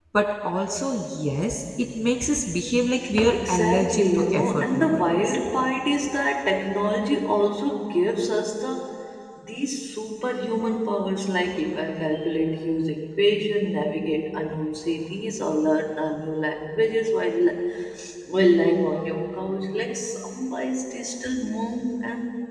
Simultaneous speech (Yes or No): Yes